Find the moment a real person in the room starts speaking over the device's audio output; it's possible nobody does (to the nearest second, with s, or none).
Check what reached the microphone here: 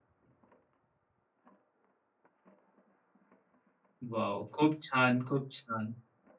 4 s